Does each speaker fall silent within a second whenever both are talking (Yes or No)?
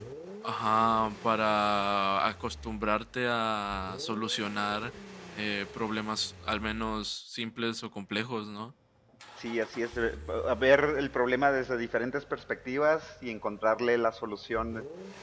Yes